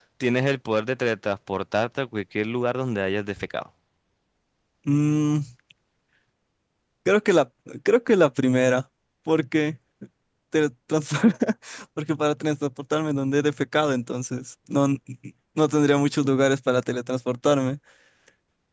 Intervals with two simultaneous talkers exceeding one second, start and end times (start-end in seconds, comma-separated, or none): none